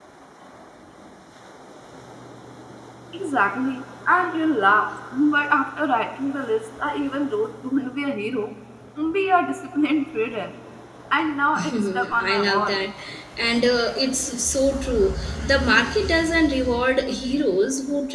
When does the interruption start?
11.6 s

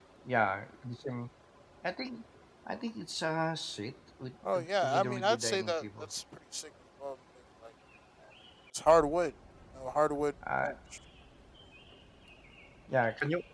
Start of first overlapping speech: 4.5 s

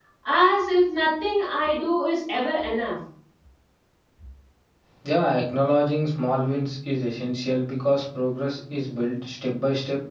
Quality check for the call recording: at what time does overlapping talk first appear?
none

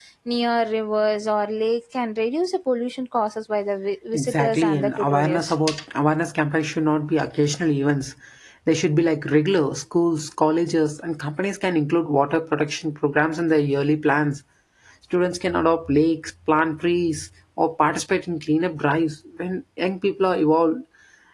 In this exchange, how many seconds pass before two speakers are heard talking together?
4.1 s

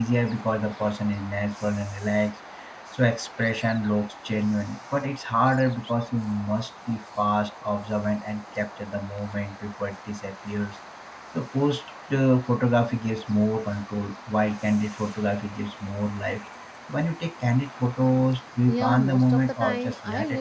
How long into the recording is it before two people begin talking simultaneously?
18.7 s

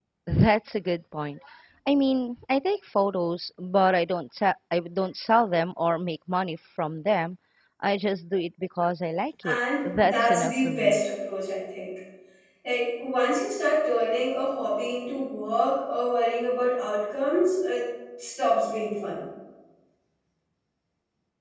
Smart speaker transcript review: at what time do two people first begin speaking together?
9.4 s

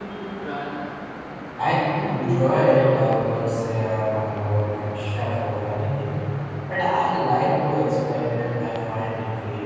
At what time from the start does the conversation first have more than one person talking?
1.8 s

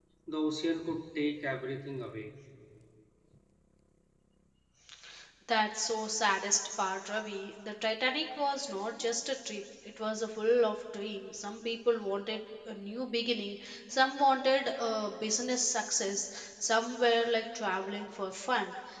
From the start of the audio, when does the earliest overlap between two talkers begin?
none

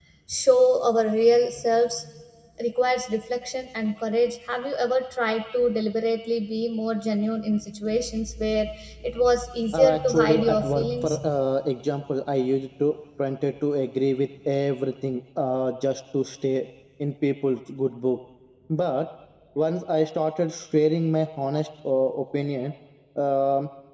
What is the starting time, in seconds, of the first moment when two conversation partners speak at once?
9.7 s

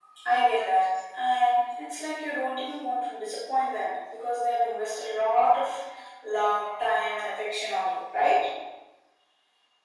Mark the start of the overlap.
none

